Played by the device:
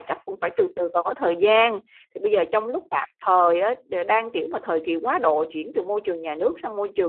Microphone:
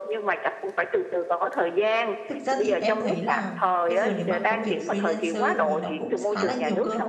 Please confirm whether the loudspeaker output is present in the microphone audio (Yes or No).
Yes